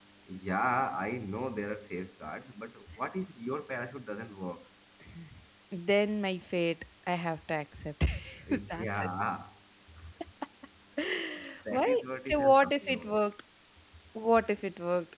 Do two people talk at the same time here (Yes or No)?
Yes